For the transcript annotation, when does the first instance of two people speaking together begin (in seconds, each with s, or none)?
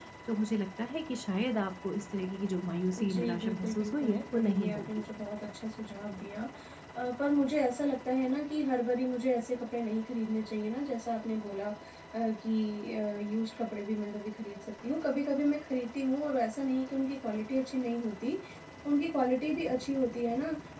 2.9 s